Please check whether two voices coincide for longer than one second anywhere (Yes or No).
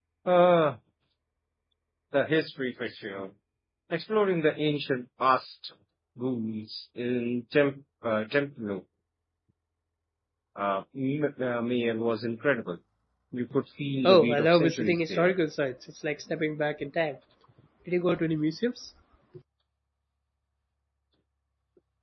Yes